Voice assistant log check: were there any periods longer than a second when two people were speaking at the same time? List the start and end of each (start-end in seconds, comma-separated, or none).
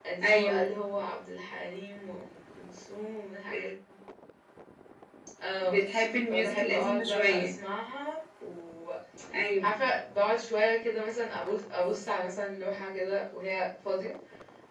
6.3-7.5